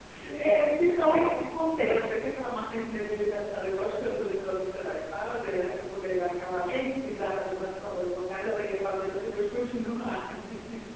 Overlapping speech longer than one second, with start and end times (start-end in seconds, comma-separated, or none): none